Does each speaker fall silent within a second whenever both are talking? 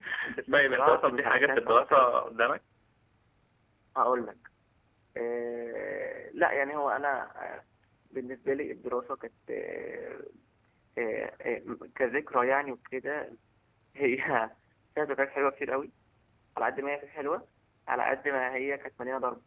No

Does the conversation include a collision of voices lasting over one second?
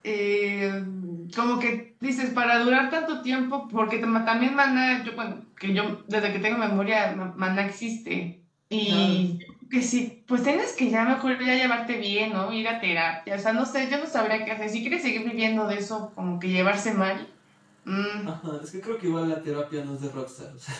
No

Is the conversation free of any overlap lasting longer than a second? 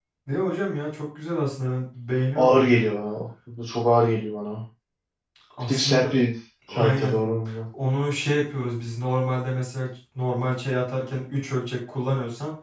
Yes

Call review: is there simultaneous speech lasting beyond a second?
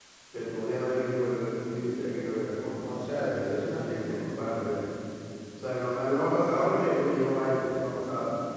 Yes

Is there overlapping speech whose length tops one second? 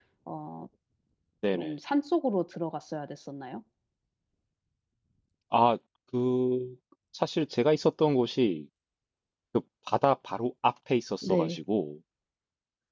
No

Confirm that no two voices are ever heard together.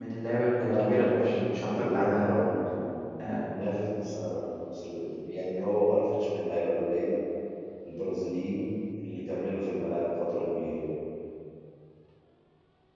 No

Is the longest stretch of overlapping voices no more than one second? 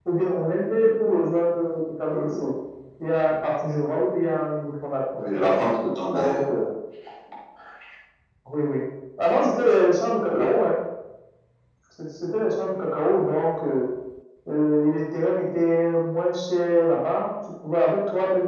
Yes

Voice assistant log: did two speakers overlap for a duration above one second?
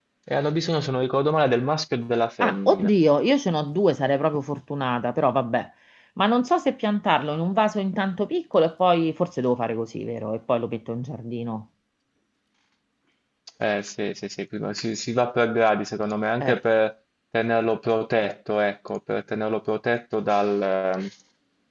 No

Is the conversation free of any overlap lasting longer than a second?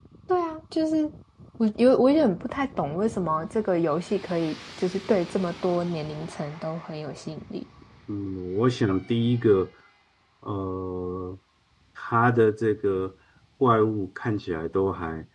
Yes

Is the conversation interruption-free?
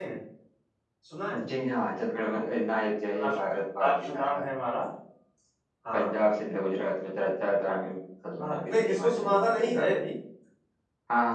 No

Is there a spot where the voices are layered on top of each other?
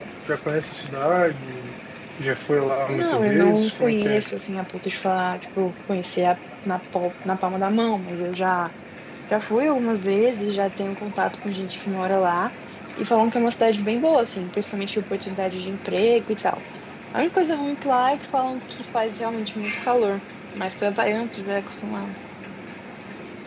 Yes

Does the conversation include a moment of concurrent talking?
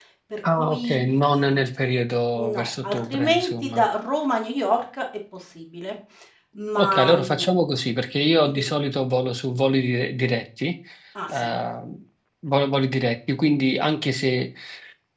Yes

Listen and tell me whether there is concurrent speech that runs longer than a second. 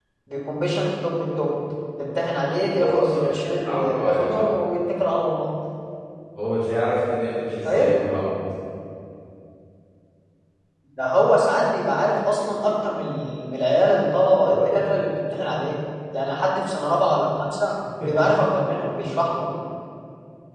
Yes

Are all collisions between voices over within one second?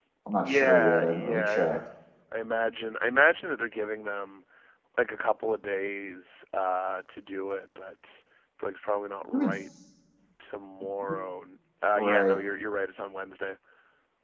No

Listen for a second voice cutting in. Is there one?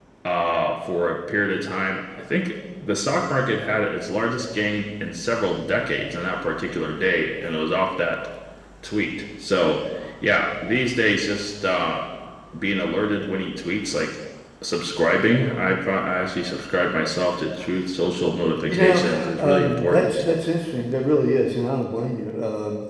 Yes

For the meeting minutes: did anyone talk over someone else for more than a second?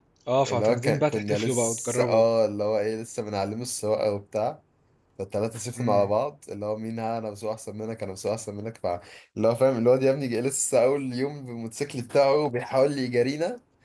Yes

